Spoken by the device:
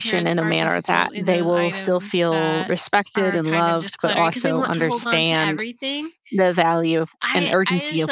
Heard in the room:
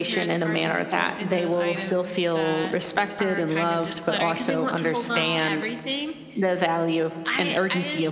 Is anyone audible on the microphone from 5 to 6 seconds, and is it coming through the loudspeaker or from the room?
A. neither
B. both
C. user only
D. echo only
B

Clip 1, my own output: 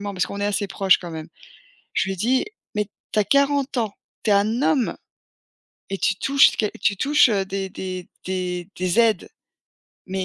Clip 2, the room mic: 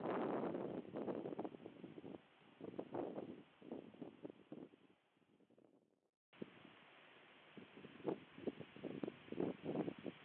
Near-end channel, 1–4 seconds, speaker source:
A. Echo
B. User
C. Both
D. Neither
D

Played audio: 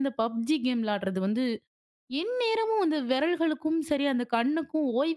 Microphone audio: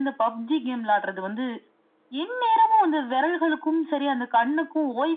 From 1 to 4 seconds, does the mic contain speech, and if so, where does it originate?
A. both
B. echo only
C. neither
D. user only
B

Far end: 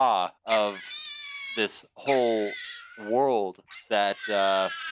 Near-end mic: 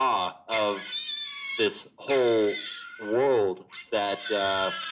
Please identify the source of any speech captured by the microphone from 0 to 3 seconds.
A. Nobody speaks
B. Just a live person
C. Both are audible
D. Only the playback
D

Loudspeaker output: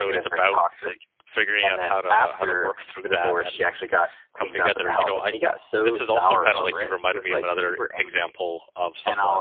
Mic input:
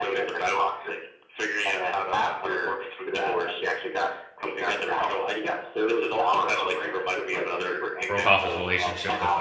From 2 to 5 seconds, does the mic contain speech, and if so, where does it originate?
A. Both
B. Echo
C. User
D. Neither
B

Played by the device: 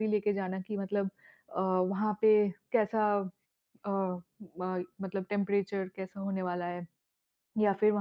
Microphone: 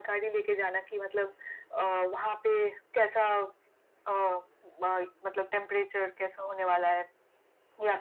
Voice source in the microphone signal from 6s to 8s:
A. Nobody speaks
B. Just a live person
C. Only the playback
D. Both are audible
C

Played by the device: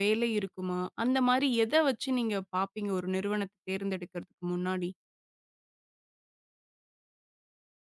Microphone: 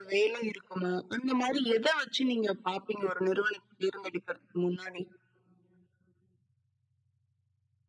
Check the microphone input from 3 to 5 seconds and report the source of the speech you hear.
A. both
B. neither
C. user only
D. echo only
D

